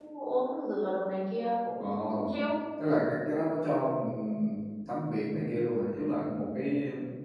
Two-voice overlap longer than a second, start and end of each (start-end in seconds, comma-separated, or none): none